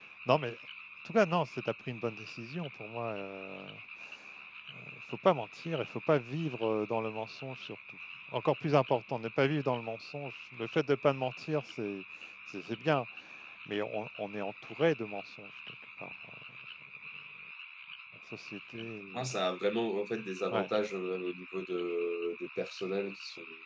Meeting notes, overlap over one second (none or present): none